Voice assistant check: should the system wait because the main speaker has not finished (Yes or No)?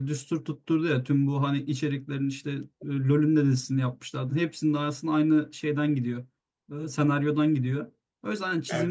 Yes